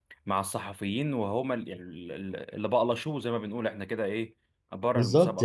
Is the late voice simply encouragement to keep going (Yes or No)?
No